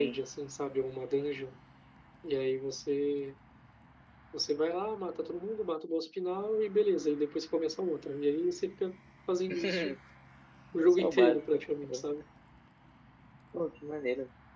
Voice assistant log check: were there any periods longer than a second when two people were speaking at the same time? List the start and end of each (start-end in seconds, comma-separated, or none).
10.8-12.1